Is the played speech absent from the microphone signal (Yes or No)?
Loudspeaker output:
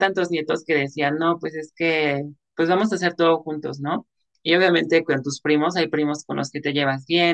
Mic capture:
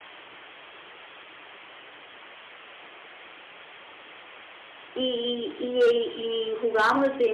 Yes